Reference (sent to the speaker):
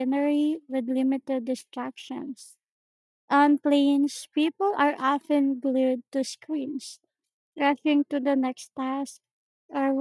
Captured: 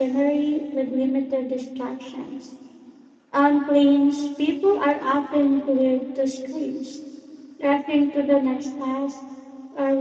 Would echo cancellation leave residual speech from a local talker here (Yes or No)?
No